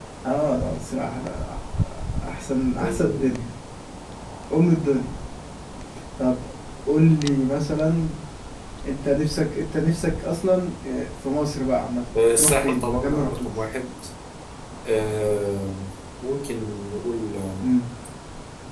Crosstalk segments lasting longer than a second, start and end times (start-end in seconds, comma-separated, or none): 12.2-13.5